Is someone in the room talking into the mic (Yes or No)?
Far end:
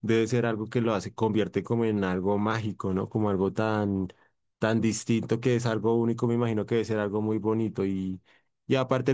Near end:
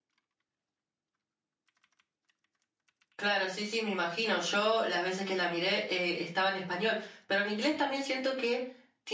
Yes